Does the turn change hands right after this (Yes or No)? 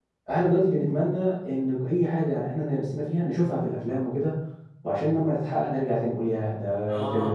Yes